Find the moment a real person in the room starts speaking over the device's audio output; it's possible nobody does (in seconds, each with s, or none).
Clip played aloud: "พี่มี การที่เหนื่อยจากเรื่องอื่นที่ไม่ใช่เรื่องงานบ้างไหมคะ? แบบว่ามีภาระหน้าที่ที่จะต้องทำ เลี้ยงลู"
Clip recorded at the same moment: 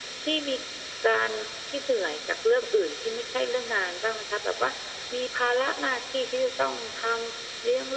none